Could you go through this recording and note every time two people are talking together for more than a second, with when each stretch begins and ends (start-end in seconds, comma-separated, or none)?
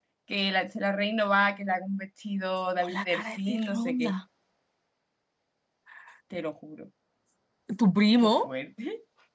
2.8-4.1